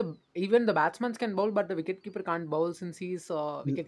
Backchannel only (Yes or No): No